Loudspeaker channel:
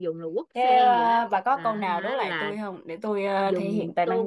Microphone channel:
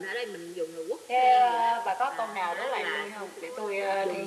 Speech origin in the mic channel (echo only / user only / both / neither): both